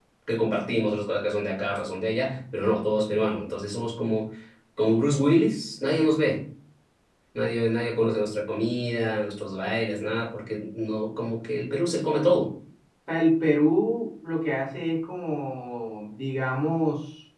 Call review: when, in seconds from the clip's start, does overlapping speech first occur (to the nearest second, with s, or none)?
none